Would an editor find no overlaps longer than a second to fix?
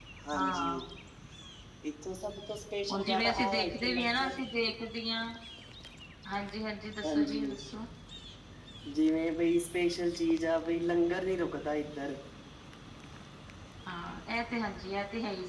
No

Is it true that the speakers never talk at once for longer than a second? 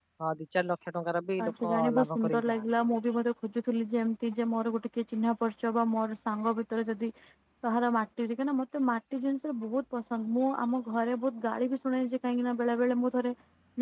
No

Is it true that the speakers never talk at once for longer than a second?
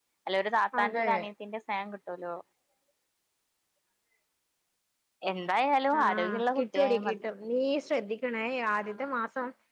No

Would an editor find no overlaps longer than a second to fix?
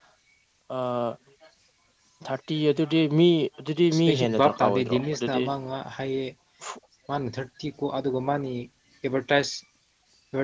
No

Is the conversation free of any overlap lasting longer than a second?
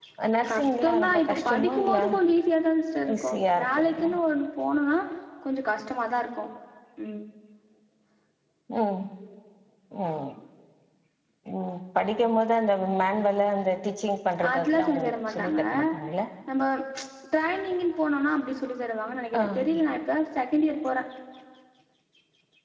No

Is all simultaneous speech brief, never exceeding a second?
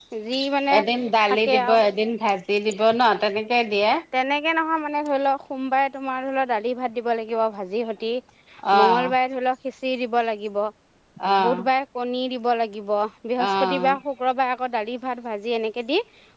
Yes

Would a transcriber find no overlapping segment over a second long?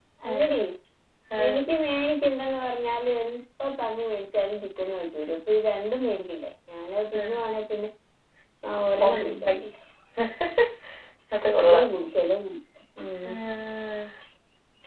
Yes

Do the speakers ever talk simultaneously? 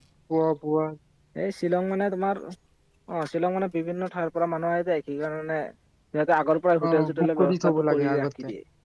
Yes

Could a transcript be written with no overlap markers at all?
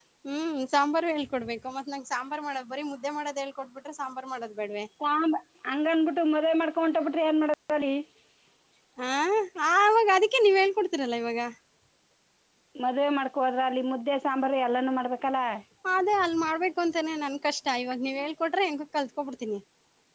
Yes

